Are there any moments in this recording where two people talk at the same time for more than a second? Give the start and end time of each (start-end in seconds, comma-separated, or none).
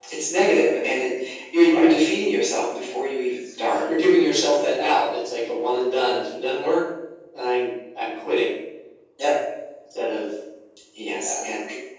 none